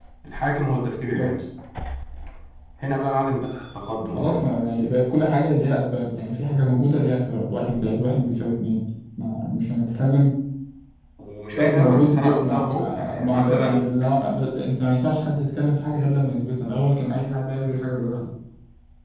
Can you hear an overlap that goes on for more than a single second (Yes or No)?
Yes